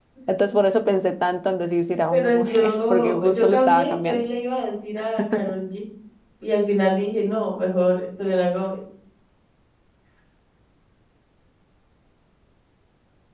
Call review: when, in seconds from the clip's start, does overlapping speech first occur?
2 s

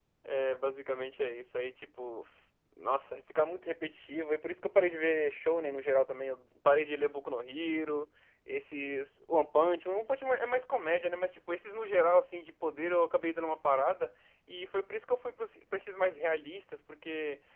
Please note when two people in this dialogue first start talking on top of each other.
none

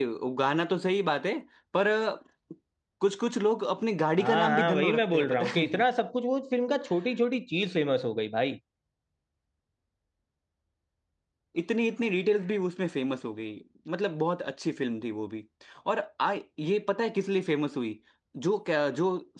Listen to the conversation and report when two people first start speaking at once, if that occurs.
4 s

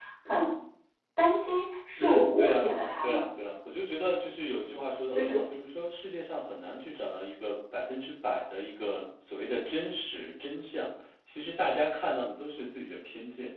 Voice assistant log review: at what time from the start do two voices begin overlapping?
2 s

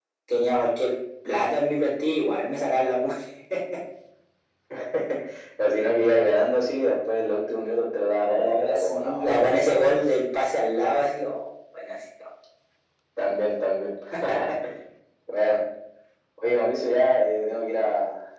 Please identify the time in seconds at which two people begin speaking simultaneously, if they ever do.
8 s

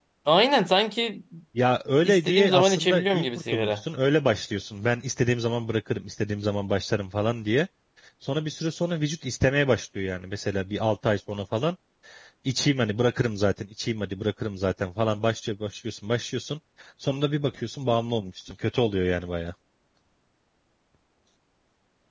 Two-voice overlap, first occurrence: 2 s

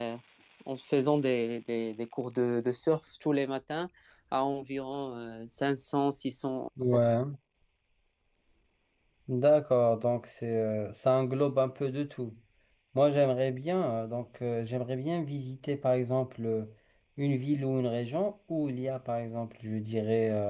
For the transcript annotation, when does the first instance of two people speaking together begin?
none

